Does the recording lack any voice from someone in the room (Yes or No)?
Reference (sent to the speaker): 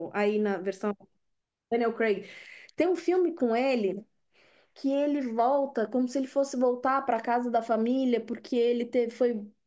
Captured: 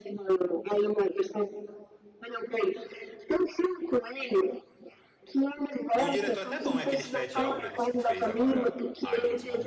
No